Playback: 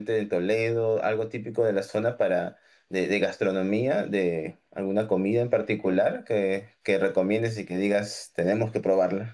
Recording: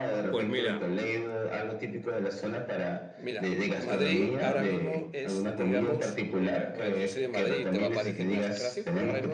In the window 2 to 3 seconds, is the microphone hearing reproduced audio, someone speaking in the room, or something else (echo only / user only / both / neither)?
echo only